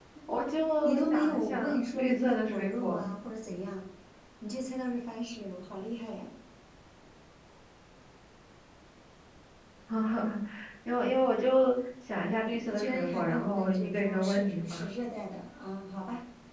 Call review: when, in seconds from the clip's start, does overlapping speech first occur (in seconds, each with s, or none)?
0.8 s